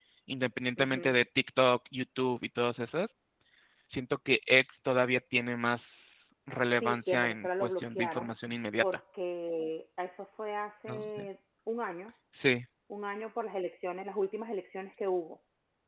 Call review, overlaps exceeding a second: present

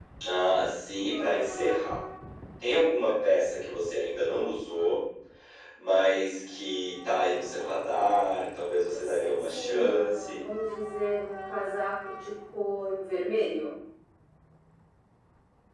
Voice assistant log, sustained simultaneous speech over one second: present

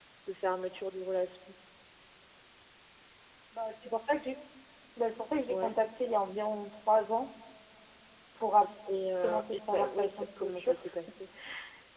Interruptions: present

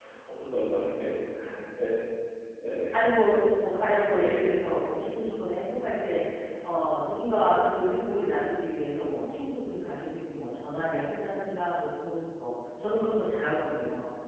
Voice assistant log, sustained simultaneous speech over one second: none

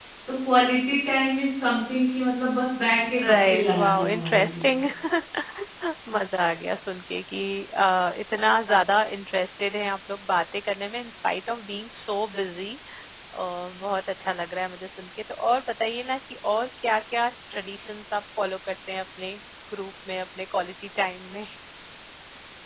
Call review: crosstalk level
present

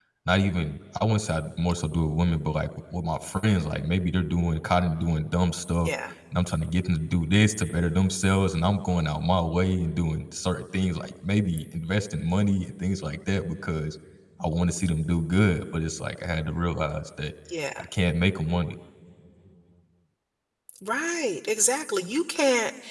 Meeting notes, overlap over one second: none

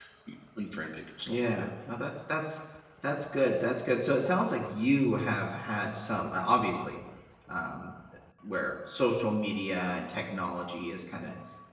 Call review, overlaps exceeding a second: none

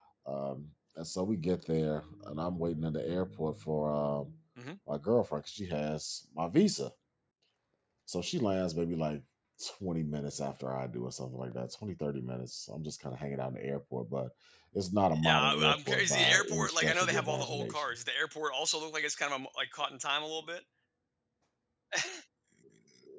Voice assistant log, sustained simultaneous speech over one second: present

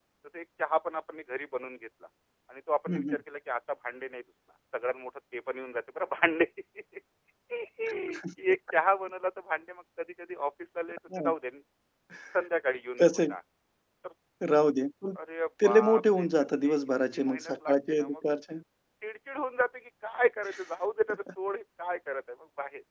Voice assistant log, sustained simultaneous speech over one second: present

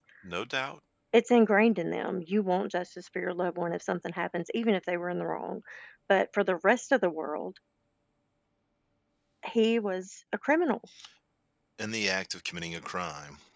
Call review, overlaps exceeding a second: none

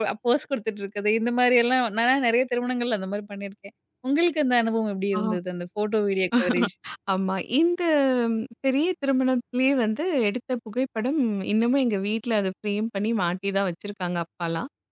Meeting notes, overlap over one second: none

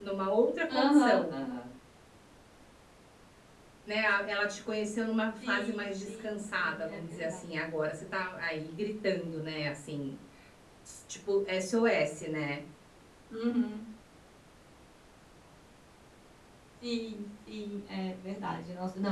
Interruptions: present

